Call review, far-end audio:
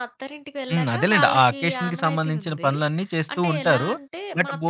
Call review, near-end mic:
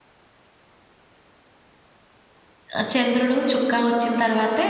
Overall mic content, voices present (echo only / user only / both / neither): user only